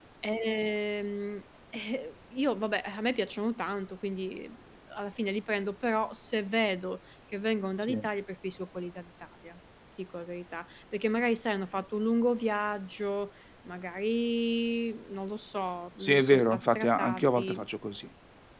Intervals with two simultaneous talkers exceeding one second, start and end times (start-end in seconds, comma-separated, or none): 16.0-17.6